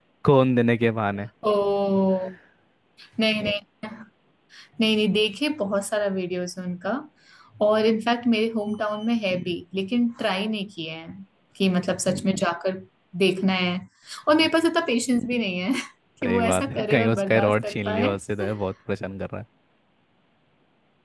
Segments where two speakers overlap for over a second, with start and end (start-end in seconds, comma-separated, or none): 16.2-18.1